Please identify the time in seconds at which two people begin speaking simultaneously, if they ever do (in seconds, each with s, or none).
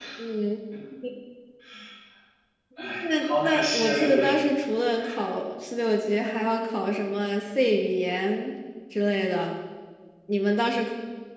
3.0 s